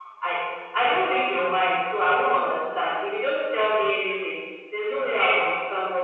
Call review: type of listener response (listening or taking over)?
listening